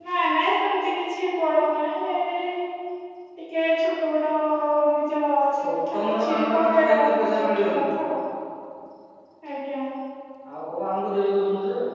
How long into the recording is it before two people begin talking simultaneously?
5.6 s

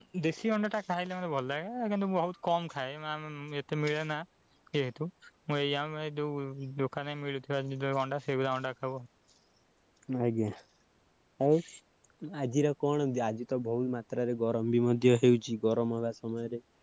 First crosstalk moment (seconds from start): none

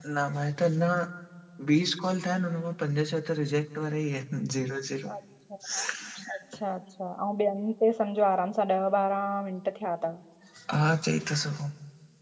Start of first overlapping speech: none

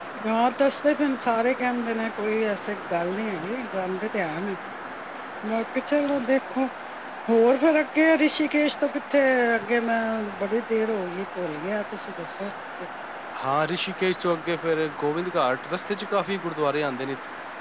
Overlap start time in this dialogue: none

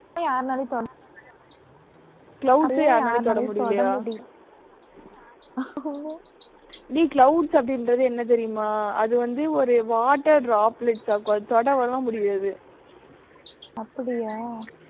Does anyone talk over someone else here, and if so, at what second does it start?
2.6 s

